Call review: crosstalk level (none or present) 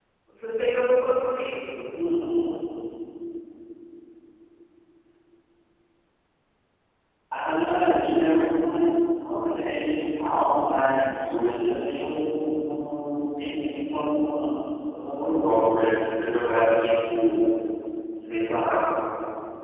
none